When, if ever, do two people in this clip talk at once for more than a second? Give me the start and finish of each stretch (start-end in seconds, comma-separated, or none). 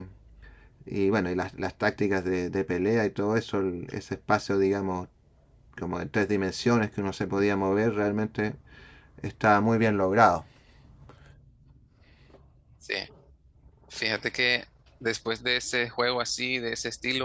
none